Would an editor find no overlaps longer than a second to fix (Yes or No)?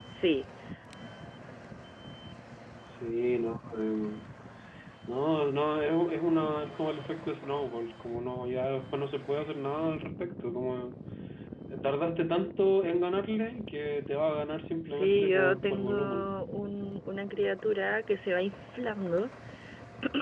No